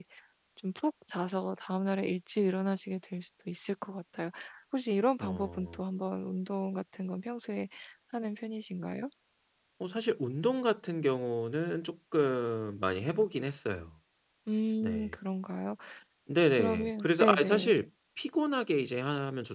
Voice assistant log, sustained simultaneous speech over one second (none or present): present